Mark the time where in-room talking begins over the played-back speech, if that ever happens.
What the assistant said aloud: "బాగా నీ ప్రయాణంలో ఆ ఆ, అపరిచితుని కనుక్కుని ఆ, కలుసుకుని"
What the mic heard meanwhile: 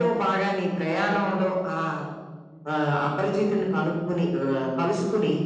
none

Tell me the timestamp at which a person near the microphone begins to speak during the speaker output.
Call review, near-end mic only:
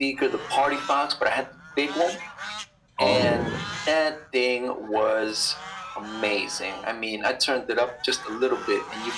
3.0 s

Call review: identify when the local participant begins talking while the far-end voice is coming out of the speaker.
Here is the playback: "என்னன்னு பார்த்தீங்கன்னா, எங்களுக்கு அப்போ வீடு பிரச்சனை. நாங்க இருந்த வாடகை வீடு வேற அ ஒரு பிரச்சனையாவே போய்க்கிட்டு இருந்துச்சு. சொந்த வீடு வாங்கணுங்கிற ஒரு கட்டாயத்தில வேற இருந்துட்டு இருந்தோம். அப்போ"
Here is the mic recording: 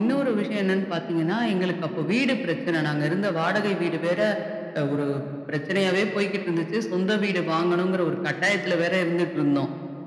none

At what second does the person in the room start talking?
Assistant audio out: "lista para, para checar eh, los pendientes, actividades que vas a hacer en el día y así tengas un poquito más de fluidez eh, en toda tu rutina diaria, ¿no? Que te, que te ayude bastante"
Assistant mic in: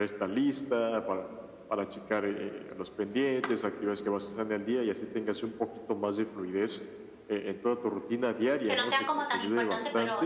8.7 s

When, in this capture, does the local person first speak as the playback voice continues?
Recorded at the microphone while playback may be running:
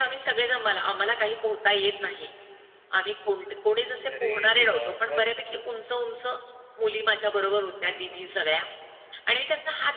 4.2 s

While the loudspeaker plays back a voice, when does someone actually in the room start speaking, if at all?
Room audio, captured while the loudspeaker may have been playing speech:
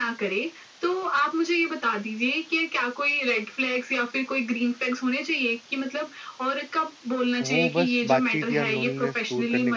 7.5 s

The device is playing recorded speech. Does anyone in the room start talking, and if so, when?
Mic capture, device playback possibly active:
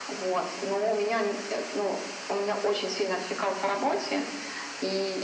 none

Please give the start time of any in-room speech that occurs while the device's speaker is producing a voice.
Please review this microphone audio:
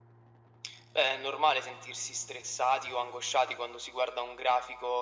none

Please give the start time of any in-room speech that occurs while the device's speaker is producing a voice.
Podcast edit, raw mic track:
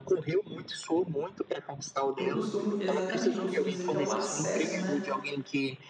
2.2 s

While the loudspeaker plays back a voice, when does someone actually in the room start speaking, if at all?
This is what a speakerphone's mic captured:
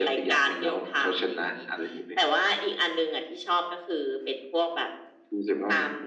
none

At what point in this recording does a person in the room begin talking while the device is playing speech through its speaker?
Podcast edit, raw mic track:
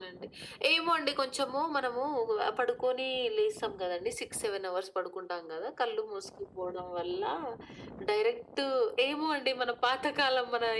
none

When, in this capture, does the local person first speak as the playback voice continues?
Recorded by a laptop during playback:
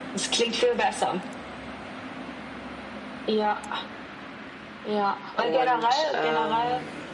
5.3 s

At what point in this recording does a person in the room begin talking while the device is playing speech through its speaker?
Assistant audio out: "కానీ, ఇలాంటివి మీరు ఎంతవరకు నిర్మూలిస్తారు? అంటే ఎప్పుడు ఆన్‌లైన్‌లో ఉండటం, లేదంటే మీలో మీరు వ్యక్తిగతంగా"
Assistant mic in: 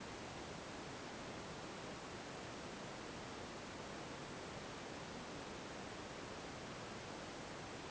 none

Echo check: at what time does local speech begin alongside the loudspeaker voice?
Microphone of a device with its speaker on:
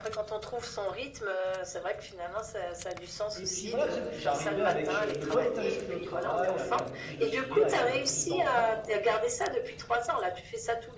3.3 s

